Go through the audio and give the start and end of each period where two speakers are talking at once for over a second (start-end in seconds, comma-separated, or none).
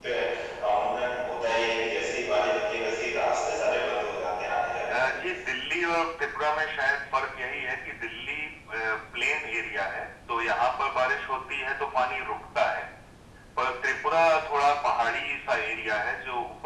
none